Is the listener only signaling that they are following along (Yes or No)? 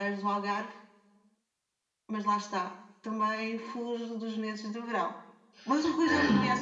No